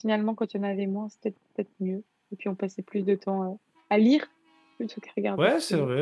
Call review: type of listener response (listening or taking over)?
taking over